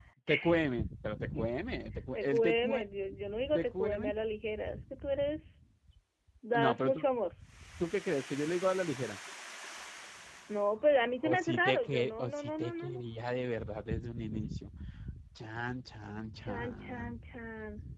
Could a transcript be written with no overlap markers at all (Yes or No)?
No